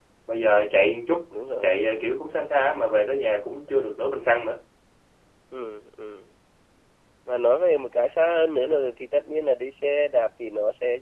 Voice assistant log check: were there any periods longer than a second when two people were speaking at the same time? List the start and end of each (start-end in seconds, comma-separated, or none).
none